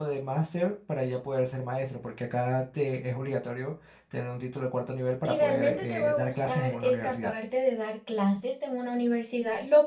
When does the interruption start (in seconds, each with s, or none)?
5.2 s